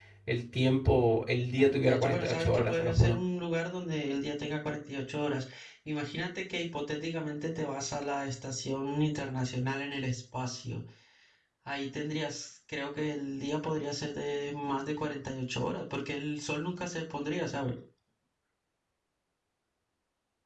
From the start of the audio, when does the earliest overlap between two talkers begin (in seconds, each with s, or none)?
1.6 s